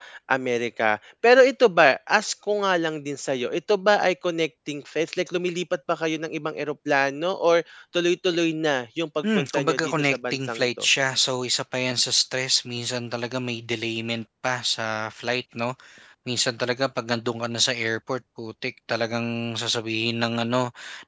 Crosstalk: present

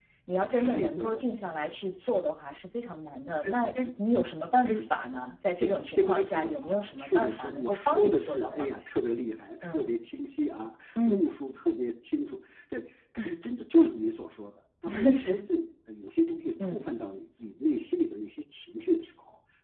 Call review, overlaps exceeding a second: present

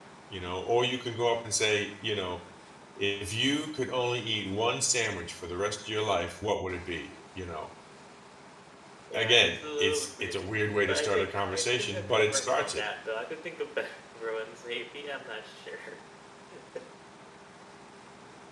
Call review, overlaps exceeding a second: present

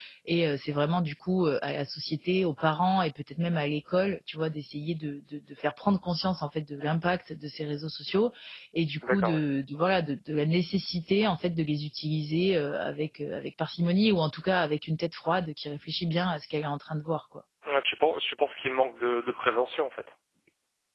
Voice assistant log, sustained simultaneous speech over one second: none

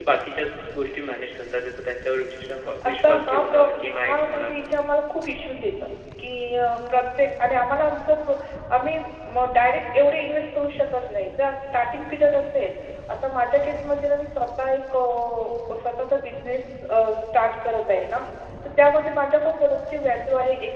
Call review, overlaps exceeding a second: present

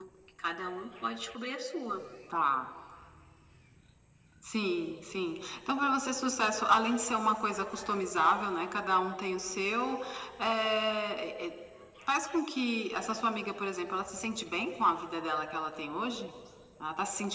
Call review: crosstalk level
none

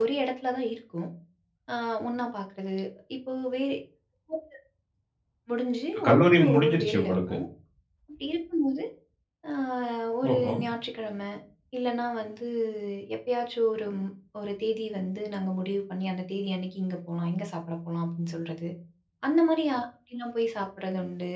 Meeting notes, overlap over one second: present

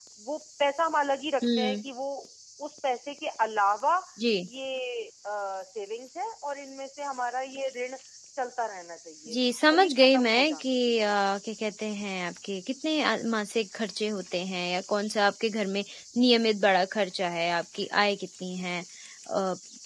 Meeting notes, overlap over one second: present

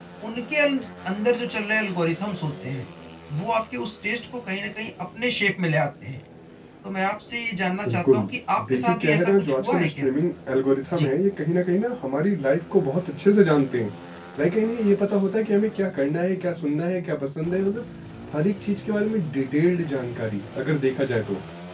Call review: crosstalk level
present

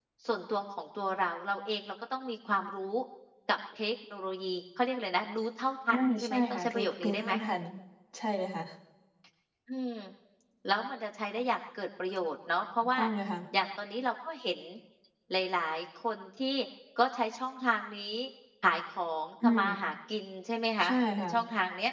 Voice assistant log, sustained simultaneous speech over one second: present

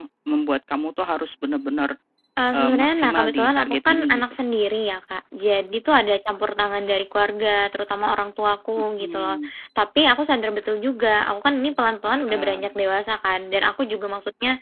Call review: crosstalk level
present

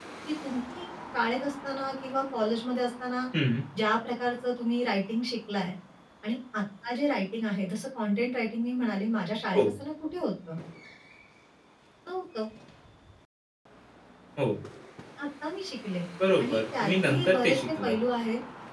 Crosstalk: present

